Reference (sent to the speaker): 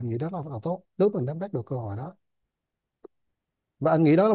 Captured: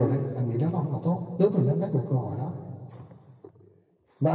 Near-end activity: none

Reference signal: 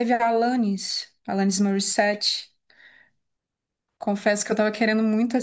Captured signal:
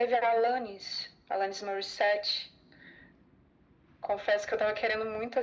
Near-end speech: none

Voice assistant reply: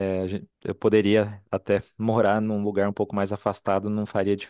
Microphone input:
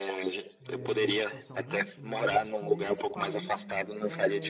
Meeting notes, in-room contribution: present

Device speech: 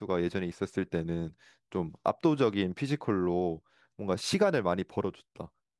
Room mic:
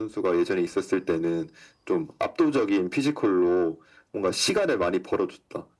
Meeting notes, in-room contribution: none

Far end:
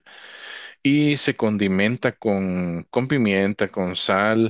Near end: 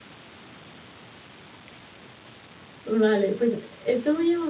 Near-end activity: present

